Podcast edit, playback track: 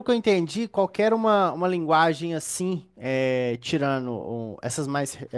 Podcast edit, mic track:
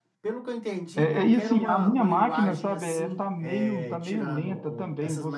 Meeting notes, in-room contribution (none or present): present